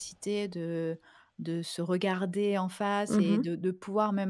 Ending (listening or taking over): listening